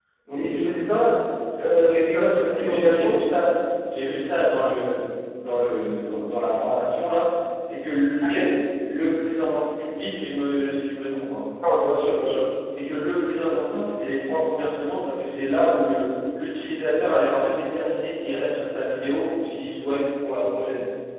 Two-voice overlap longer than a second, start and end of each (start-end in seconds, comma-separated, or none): 1.8-3.2